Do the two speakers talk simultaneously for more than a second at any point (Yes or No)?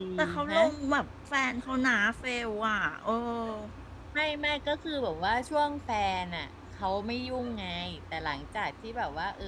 No